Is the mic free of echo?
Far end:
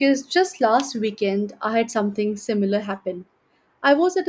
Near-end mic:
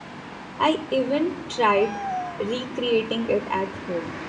Yes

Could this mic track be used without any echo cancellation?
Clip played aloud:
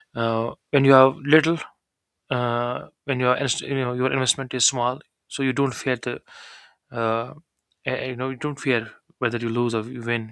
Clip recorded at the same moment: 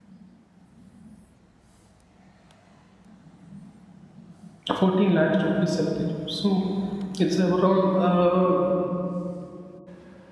Yes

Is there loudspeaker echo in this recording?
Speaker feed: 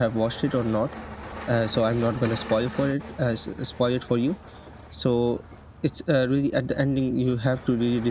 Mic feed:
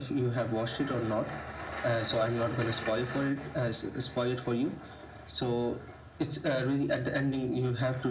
Yes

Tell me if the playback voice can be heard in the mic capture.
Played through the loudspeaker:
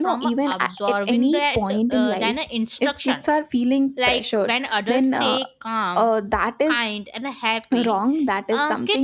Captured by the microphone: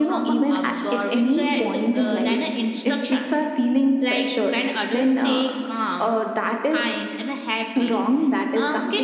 Yes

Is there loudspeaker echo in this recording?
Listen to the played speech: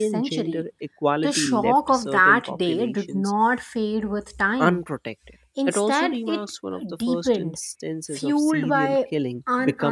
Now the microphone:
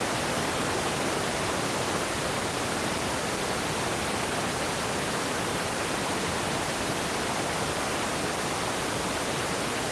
No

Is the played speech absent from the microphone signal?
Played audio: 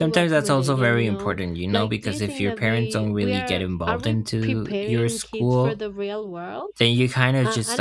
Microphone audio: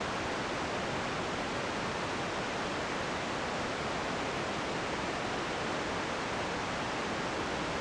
Yes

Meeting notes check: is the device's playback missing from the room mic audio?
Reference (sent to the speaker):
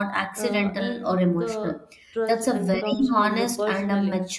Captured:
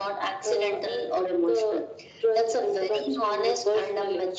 No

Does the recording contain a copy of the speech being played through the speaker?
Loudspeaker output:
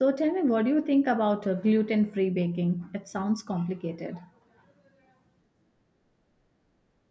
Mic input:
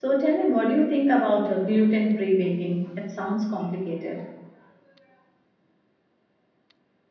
Yes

